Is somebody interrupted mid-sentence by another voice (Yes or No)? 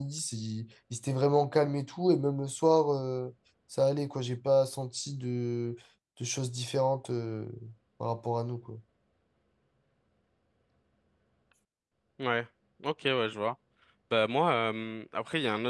No